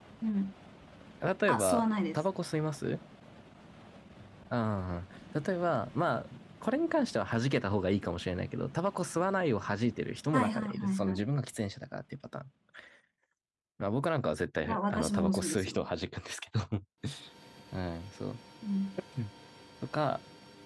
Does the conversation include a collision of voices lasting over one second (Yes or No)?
Yes